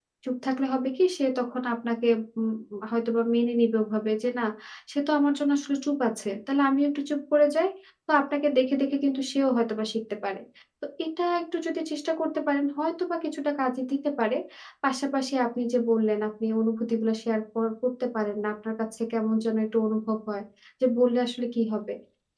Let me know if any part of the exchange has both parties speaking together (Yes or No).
No